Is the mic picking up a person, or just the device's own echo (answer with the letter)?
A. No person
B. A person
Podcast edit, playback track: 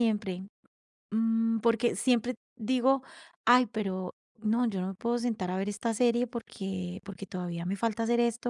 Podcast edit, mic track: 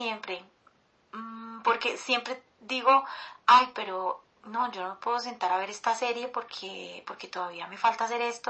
A